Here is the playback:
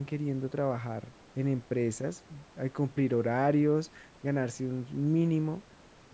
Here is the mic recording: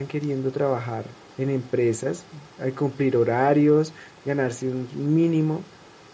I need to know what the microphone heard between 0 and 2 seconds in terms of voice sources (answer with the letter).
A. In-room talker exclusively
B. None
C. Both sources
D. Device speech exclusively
D